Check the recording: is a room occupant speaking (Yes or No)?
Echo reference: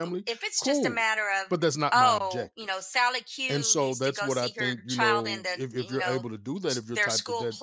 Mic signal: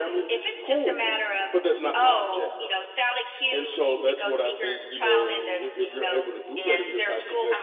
Yes